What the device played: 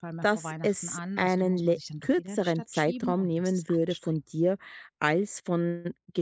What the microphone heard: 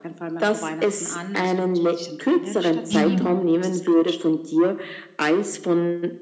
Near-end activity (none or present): present